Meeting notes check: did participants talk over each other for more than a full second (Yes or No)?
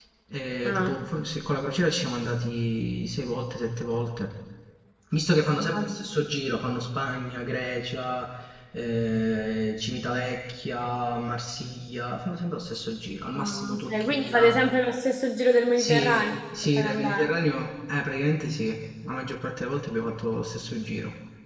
Yes